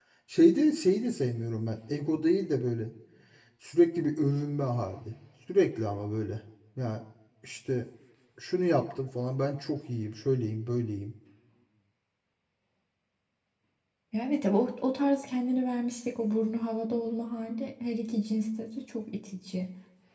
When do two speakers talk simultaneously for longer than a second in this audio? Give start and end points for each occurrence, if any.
none

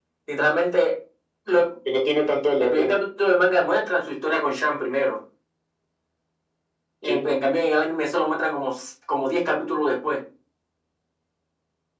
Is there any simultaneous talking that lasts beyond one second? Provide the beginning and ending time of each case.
none

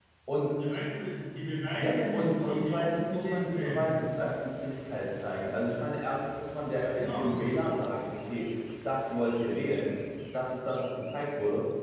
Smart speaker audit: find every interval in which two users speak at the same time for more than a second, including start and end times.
1.8-4.0

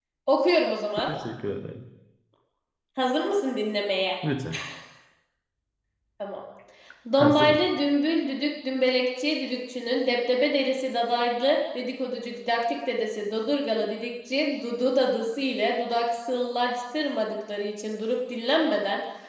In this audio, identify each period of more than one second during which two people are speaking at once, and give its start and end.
none

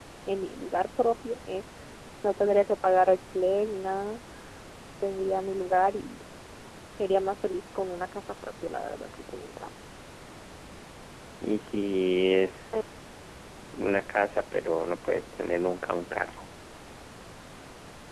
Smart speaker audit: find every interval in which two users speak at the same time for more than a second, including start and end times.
none

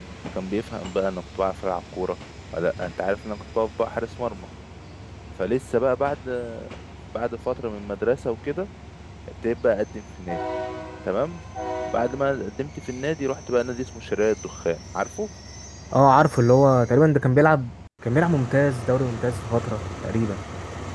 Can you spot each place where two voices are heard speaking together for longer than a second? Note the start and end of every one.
none

